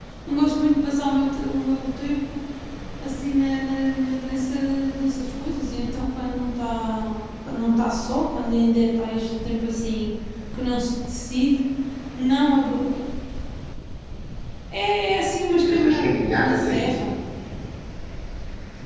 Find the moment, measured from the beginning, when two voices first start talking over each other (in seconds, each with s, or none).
15.6 s